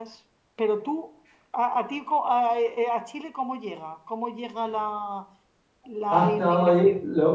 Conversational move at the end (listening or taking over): taking over